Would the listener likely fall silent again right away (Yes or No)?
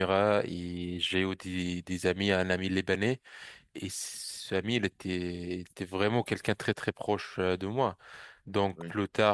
Yes